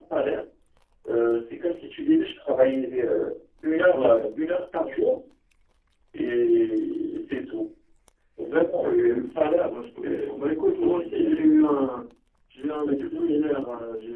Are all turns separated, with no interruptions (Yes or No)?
No